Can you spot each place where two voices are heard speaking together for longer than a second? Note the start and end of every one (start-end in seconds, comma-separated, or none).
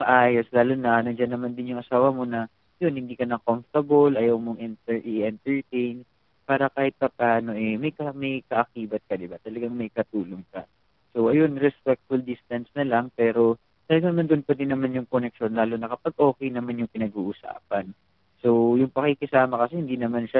none